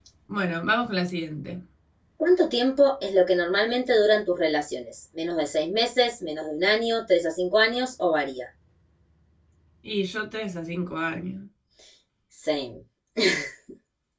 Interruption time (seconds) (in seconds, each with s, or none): none